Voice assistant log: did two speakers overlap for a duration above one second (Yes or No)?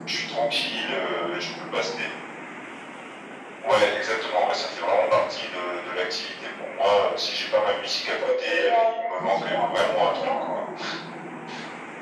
Yes